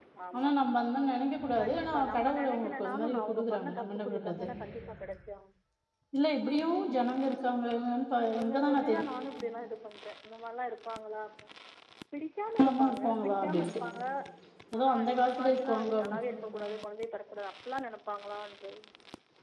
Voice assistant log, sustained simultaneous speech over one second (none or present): present